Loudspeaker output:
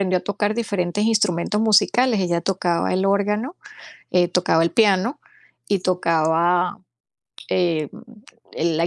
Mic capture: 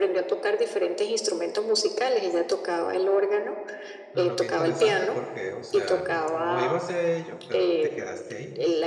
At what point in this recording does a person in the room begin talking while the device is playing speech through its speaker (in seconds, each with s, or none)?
4.1 s